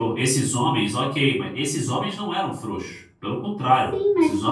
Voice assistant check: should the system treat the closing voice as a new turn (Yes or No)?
Yes